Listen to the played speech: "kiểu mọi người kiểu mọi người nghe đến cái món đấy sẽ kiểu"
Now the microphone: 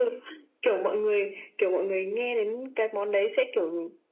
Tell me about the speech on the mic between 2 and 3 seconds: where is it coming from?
echo only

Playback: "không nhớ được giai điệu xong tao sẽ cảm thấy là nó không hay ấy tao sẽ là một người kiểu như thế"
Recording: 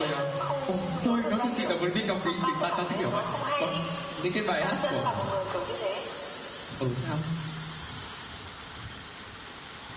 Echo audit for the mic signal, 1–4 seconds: both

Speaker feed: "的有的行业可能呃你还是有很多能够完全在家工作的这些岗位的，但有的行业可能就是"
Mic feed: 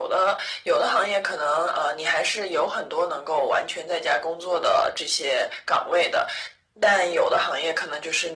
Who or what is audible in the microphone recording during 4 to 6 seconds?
echo only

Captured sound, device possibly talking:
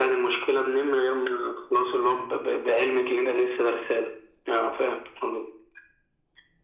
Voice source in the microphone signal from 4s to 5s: echo only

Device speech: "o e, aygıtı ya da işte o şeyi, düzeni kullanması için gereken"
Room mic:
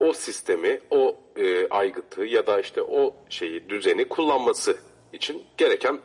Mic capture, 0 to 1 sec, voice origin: echo only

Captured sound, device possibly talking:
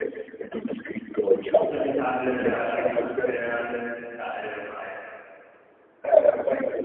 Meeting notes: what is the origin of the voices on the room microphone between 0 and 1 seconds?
echo only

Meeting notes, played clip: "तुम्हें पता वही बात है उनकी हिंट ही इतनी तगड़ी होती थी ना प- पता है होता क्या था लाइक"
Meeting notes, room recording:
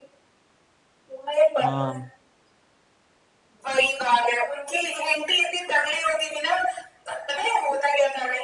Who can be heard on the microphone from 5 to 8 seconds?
echo only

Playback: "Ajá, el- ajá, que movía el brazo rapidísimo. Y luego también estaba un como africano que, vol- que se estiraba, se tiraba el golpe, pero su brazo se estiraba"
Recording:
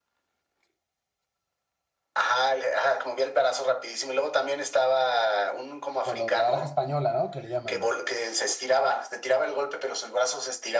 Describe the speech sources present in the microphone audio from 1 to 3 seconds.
echo only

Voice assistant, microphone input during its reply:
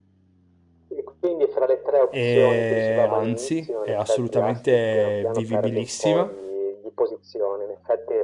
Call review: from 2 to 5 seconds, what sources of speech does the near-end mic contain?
both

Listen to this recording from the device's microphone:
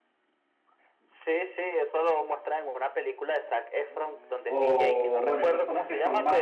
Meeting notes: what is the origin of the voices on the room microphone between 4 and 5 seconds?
both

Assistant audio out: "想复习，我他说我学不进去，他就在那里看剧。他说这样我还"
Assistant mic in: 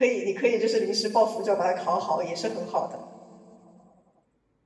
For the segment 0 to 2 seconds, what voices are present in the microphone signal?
user only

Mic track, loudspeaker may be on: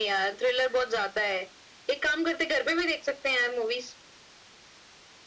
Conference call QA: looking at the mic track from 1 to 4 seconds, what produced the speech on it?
echo only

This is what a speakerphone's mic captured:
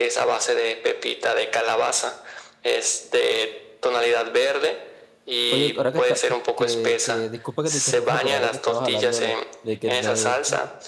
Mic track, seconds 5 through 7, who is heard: both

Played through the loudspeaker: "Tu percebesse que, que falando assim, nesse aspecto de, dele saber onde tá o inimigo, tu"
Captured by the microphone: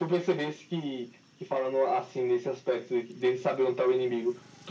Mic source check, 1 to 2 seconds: echo only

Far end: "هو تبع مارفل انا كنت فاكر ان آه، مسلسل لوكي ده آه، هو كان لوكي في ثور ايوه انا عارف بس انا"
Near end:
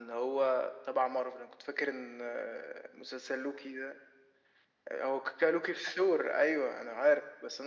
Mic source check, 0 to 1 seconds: echo only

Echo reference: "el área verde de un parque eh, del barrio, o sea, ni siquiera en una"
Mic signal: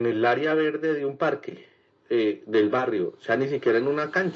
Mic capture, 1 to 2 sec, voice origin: echo only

